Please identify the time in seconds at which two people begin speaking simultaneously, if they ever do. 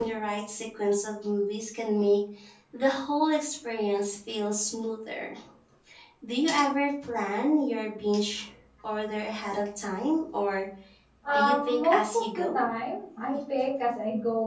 11 s

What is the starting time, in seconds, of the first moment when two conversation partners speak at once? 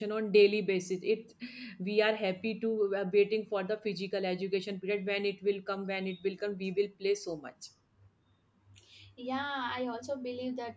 none

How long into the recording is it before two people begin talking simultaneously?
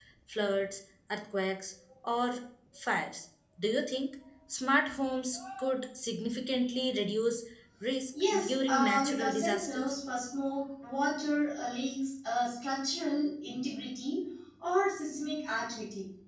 8 s

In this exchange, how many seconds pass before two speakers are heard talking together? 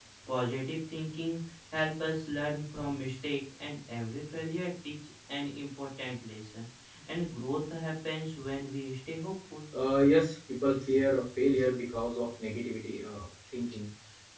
none

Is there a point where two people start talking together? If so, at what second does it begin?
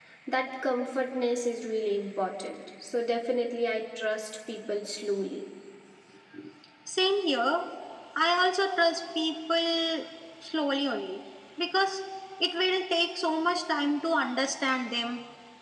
none

